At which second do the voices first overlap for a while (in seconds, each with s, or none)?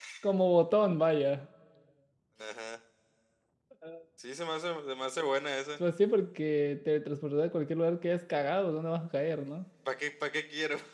none